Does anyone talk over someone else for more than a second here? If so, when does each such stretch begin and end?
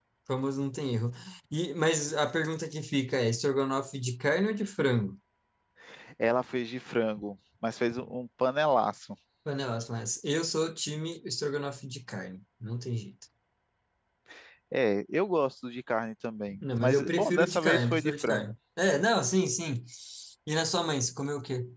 16.8-18.5

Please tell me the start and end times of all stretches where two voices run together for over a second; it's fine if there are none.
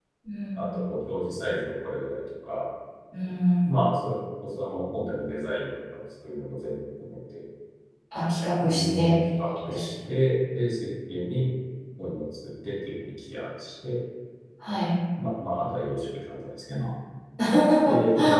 8.6-9.8

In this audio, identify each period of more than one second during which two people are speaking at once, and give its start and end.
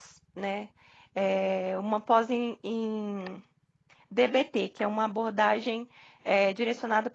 none

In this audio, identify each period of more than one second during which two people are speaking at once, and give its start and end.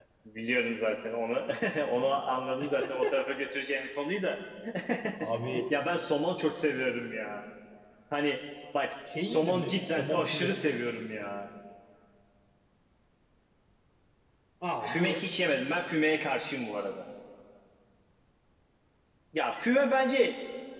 9.2-10.6

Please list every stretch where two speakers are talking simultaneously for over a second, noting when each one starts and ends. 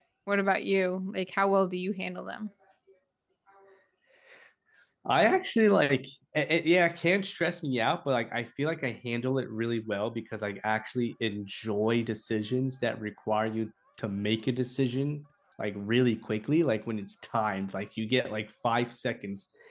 none

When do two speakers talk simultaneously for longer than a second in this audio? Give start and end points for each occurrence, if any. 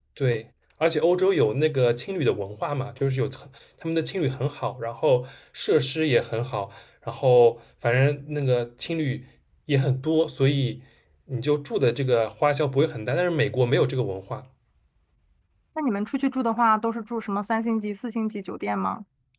none

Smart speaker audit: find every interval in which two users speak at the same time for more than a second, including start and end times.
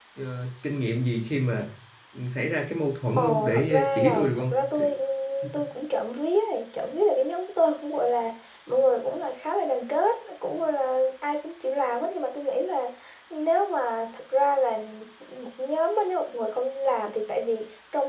3.2-4.9

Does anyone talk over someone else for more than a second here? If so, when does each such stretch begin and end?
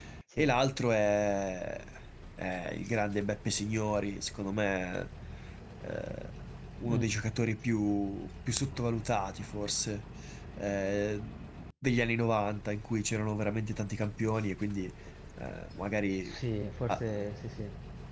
none

